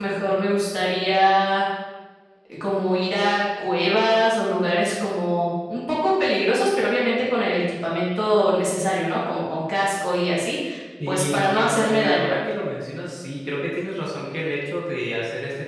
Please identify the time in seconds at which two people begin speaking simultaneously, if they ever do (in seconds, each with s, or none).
11.1 s